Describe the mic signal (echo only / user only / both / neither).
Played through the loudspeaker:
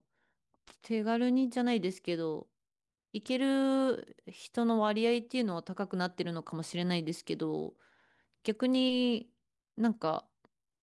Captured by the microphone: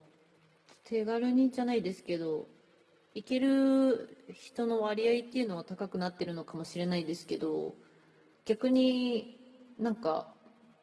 echo only